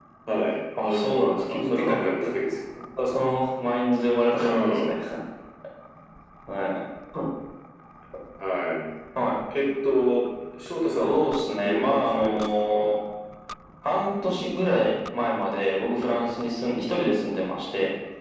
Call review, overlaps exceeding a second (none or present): present